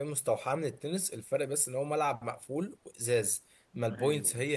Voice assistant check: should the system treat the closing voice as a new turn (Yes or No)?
No